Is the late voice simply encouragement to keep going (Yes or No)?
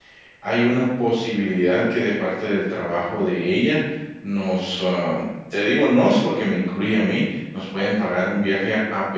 Yes